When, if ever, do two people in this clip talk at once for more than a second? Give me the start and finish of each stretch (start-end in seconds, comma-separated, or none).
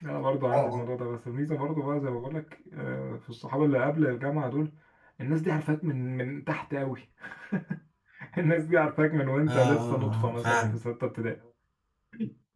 9.5-10.8